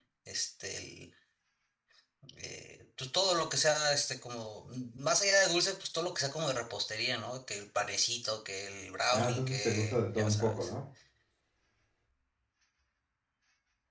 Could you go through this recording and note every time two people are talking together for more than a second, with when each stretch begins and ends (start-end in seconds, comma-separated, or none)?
9.1-10.7